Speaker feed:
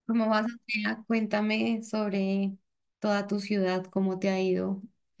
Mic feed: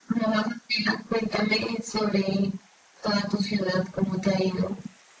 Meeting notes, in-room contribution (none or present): none